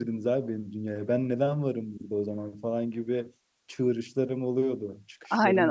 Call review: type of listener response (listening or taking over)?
taking over